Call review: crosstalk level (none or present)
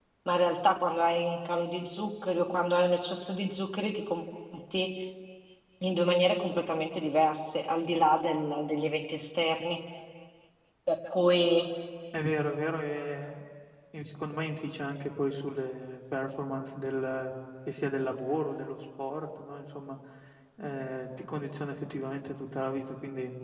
none